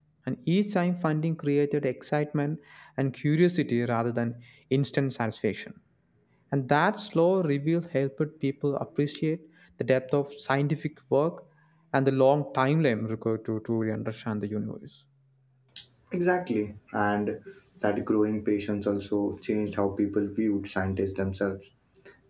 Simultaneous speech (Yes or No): No